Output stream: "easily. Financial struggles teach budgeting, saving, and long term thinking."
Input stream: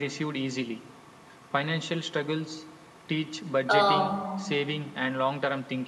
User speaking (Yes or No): Yes